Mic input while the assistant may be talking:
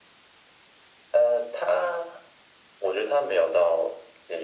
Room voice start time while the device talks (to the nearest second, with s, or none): none